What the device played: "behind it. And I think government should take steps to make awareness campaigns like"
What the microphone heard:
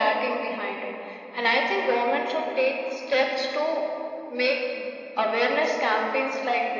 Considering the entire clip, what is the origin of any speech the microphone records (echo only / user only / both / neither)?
echo only